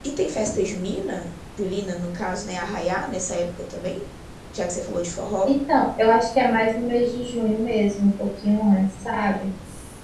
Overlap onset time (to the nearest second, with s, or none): none